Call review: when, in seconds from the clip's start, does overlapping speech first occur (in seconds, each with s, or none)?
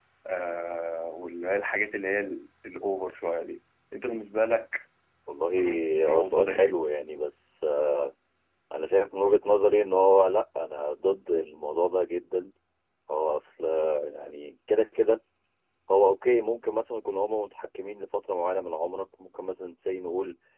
5.5 s